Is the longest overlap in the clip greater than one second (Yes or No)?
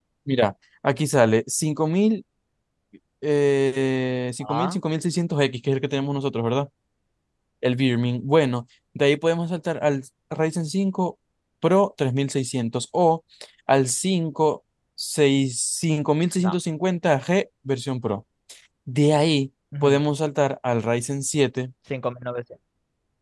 No